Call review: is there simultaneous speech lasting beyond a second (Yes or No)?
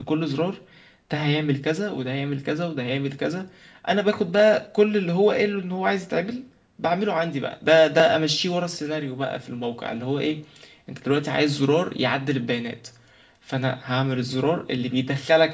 No